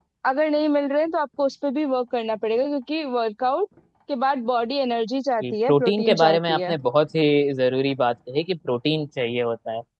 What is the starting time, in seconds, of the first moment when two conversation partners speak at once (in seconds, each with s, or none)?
5.4 s